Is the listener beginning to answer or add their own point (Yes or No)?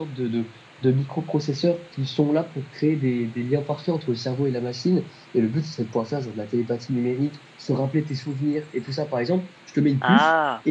No